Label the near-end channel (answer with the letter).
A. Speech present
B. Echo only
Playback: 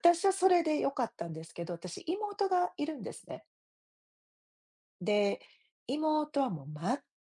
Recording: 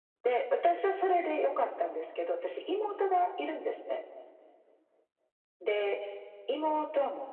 B